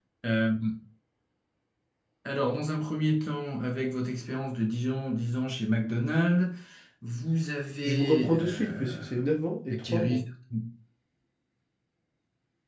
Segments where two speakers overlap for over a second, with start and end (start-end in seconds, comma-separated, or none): 7.8-9.1